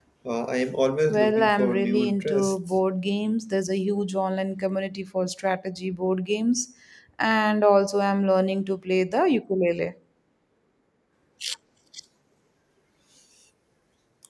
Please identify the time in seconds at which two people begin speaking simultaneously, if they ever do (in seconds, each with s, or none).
1.1 s